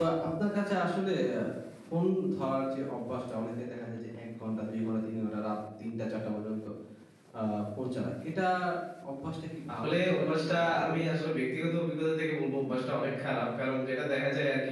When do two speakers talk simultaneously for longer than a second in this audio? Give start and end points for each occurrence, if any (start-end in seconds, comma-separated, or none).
9.8-11.0